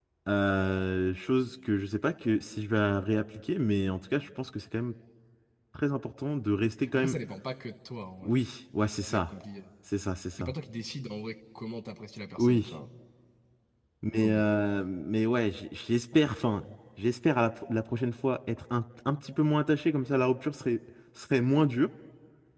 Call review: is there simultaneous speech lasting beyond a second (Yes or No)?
No